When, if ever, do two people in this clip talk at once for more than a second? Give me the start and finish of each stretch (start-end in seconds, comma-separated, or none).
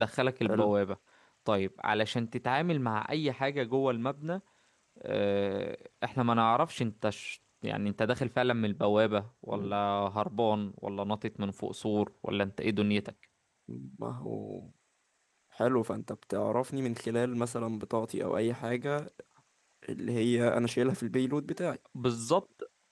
none